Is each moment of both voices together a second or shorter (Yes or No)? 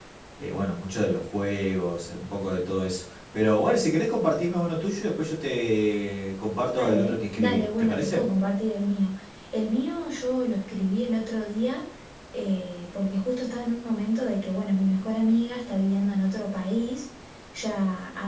No